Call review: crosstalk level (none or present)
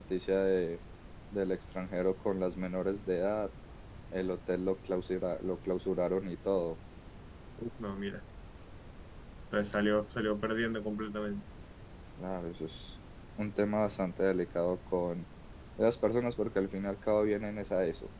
none